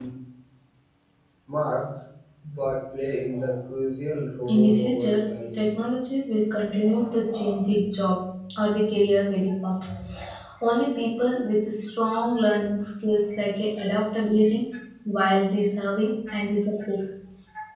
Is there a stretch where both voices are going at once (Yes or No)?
Yes